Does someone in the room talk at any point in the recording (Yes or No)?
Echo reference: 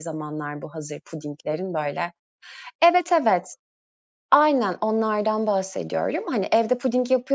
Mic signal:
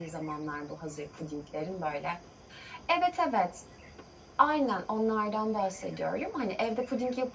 No